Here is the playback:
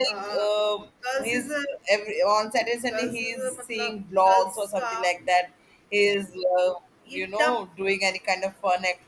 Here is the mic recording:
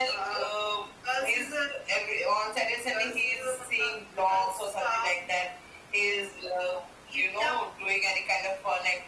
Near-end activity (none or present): none